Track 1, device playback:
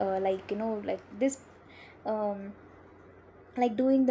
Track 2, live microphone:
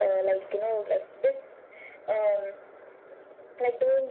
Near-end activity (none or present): none